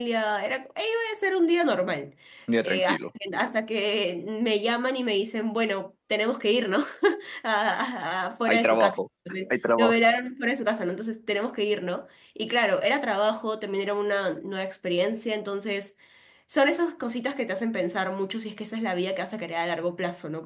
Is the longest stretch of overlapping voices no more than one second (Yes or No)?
Yes